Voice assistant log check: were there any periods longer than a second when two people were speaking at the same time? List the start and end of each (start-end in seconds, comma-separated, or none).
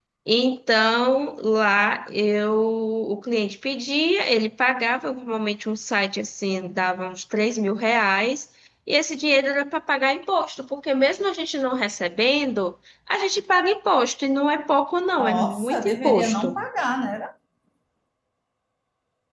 15.2-16.6